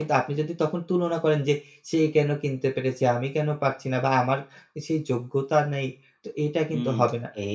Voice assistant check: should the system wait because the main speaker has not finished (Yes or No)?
No